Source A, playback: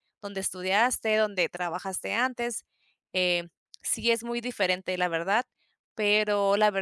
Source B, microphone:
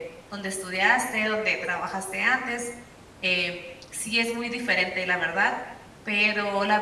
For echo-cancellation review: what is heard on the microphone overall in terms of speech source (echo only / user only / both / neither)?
echo only